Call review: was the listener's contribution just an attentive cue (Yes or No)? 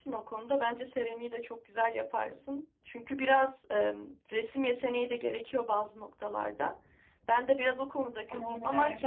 Yes